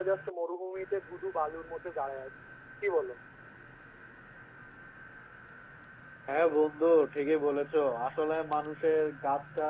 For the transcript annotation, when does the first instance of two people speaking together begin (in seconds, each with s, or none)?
none